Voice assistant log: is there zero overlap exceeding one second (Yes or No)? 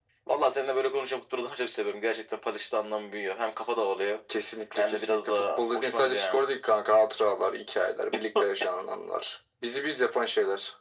No